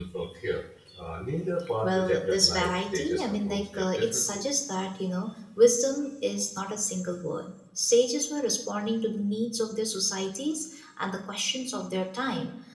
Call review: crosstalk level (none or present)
present